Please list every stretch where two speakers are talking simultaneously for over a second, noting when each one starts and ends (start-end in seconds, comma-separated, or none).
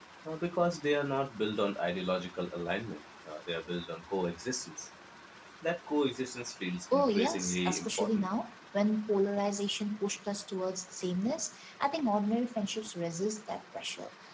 6.9-8.3